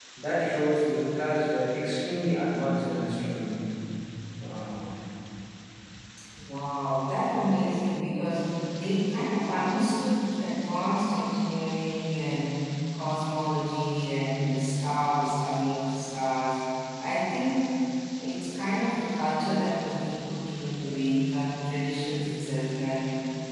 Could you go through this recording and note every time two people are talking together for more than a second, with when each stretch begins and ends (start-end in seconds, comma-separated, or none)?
none